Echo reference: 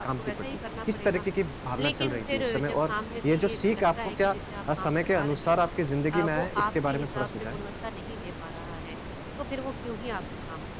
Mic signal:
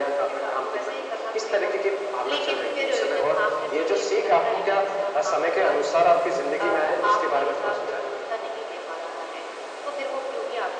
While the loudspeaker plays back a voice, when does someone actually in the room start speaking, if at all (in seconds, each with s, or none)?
none